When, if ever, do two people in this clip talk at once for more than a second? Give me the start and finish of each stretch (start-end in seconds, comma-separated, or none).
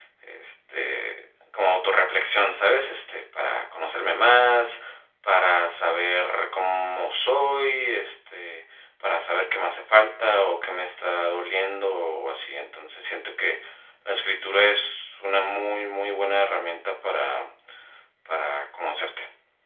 none